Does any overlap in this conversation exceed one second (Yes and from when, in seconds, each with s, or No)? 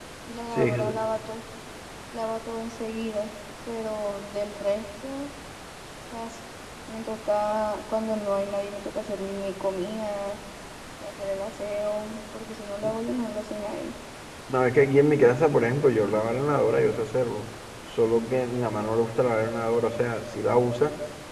No